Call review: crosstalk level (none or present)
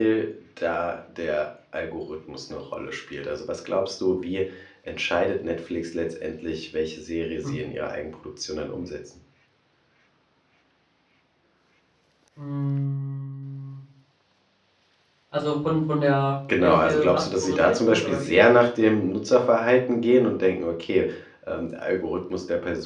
present